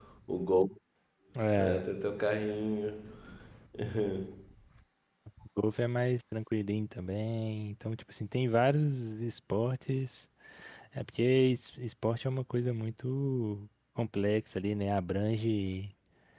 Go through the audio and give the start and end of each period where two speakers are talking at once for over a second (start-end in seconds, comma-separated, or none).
none